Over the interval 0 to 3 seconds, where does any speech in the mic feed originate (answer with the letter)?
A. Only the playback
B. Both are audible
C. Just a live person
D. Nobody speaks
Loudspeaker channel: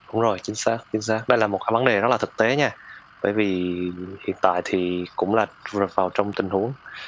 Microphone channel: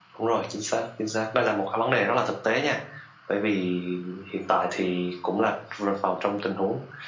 A